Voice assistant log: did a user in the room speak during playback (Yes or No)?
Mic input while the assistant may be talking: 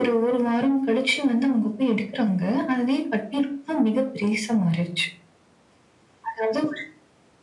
No